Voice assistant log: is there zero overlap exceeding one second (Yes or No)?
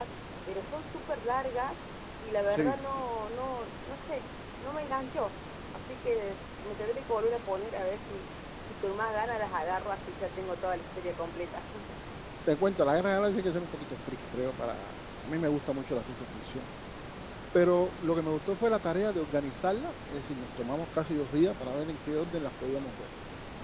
Yes